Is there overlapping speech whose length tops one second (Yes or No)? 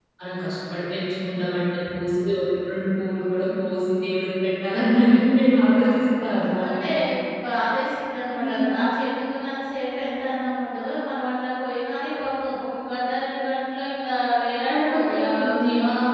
Yes